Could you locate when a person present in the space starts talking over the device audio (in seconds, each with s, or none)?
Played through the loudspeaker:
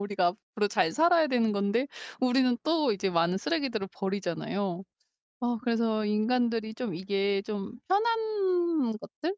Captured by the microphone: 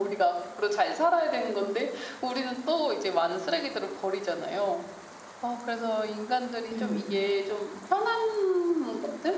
6.7 s